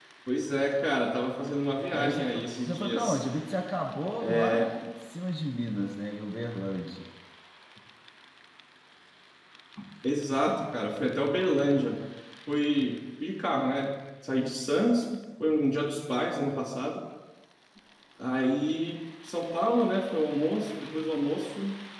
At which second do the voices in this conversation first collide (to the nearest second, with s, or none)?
2 s